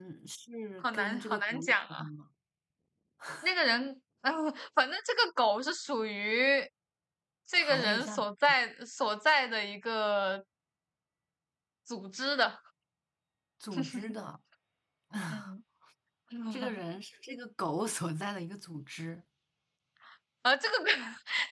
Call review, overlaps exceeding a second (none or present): present